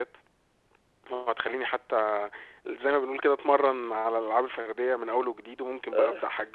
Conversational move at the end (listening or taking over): listening